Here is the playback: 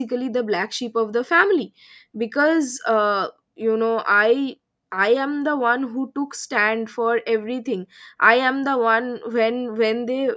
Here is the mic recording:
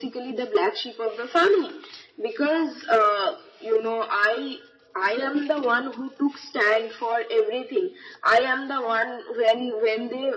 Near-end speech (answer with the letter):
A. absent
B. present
A